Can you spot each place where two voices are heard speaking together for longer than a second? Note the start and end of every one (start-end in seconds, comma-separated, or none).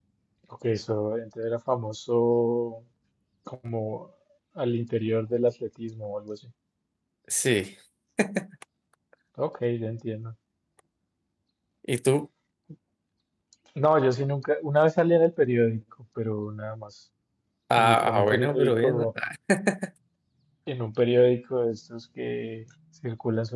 17.8-19.1